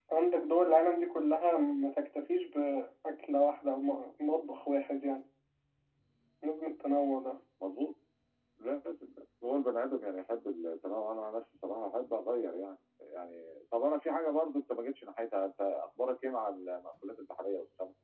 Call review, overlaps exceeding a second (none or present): none